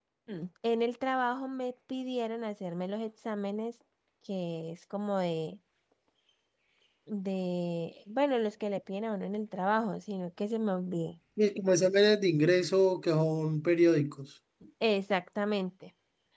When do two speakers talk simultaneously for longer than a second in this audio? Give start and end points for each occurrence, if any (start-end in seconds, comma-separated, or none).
none